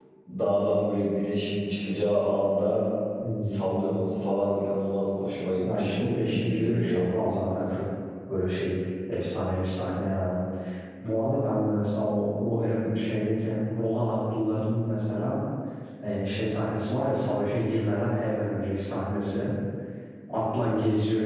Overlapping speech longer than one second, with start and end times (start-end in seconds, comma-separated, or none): 5.6-7.0